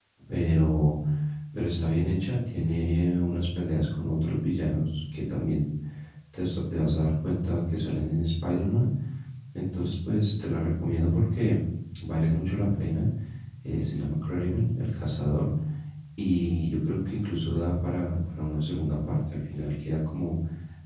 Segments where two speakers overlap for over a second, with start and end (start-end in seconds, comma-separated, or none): none